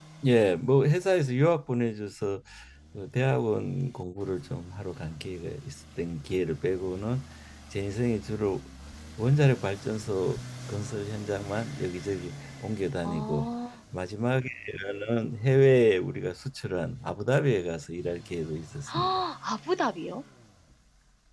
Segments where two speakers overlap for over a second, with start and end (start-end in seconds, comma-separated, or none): none